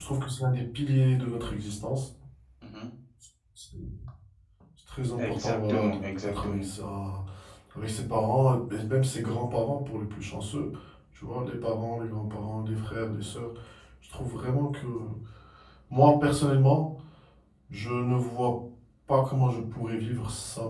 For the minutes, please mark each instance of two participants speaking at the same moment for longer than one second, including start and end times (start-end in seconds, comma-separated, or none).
5.2-6.7